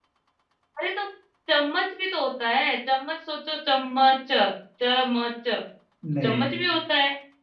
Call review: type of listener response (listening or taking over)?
listening